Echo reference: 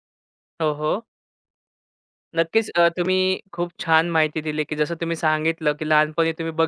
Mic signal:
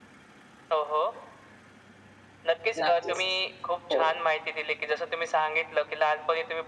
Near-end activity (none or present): present